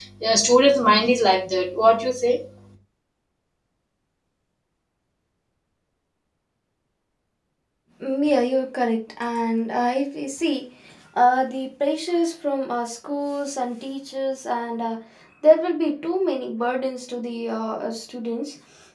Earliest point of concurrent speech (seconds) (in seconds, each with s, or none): none